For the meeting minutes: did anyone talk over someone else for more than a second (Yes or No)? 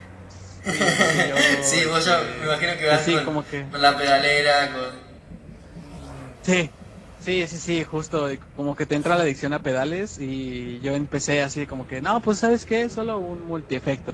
Yes